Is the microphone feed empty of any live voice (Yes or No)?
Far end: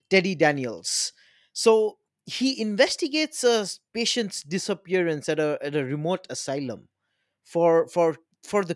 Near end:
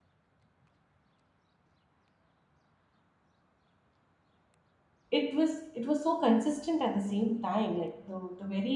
No